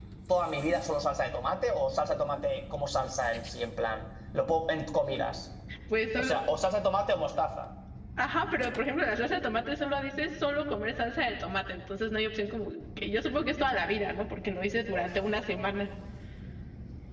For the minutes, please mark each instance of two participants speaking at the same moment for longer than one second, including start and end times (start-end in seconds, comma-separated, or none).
none